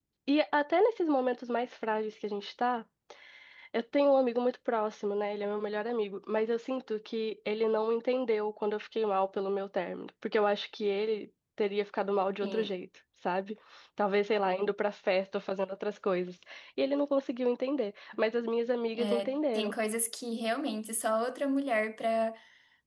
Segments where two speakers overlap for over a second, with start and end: none

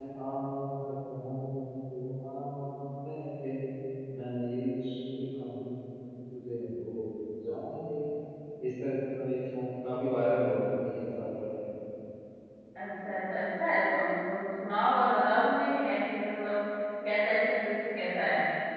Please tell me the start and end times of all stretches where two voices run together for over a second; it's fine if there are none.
none

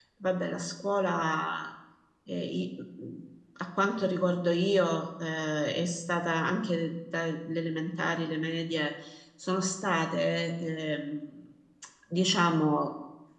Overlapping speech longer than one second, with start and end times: none

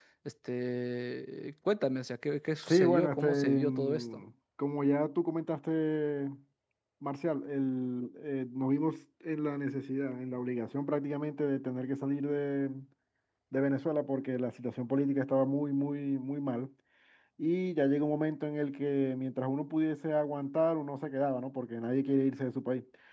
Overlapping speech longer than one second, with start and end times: 2.6-4.2

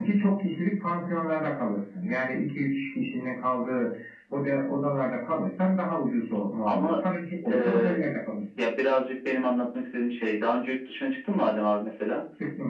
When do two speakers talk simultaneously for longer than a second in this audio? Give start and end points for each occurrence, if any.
none

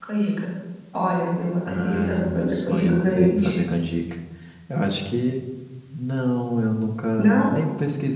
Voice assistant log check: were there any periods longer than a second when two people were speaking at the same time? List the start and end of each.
1.6-3.5

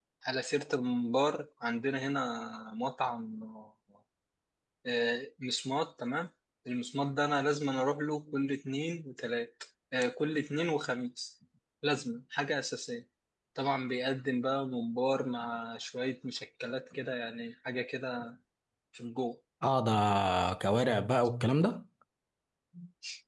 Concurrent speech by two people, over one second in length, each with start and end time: none

